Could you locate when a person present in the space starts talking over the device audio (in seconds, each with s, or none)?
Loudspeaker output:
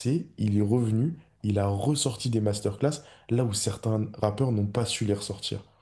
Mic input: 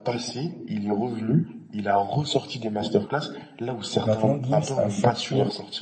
4.0 s